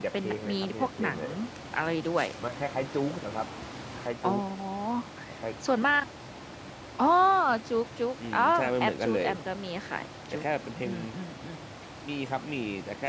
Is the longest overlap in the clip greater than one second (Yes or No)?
Yes